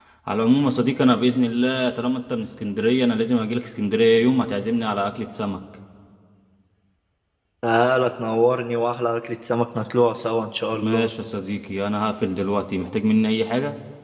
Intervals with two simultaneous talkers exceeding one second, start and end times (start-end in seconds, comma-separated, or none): none